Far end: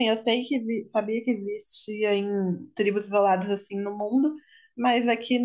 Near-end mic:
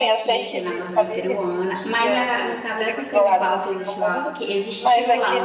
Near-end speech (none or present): present